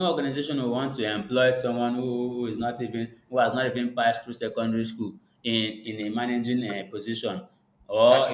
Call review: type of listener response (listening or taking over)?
listening